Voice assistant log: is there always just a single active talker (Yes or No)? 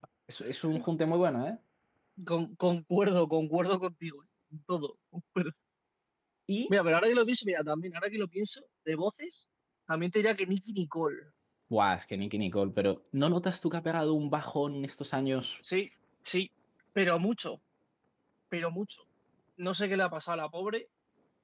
Yes